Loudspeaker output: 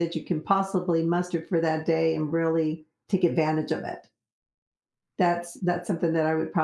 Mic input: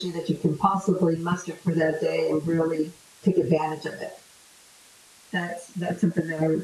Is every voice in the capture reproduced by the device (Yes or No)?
Yes